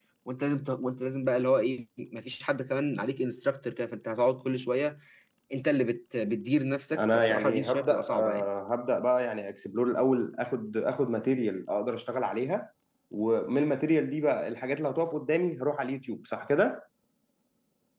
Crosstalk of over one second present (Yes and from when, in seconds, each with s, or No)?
Yes, from 7.0 s